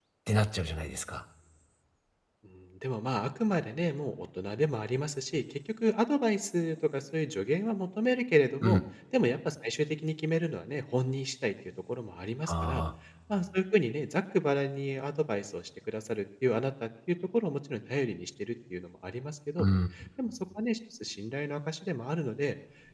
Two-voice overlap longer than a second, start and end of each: none

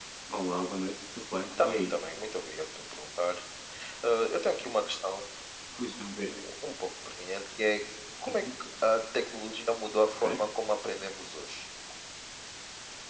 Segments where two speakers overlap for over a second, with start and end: none

